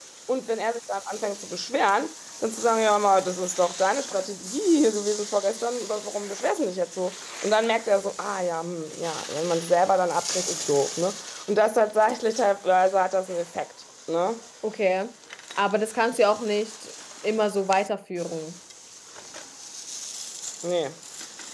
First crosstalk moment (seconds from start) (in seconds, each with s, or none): none